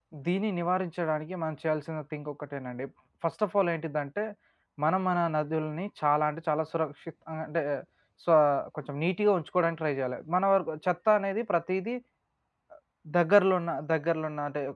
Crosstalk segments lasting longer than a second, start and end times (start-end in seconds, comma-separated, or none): none